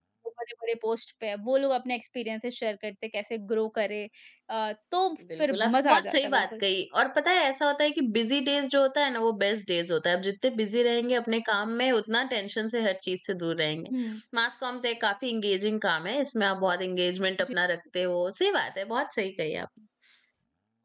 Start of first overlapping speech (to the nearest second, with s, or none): 5 s